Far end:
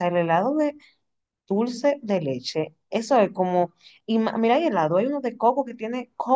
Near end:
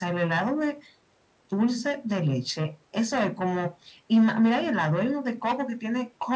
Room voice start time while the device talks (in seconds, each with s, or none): none